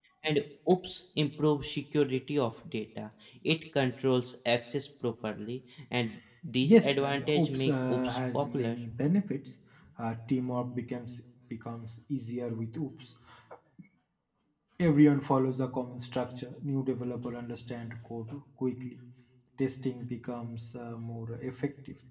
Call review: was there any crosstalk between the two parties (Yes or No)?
Yes